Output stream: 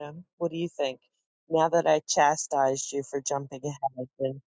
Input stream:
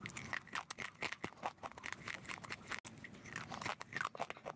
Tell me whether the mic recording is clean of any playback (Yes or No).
Yes